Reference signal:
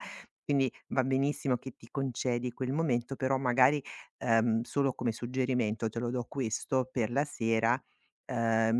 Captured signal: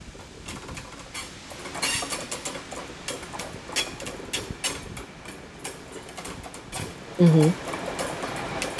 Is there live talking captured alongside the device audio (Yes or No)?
Yes